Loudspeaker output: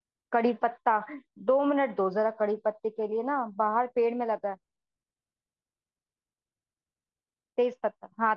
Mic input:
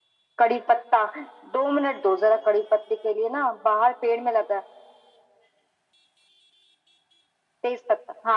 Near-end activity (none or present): none